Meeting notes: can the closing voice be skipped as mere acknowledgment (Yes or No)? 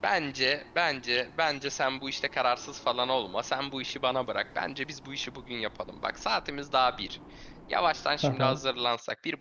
Yes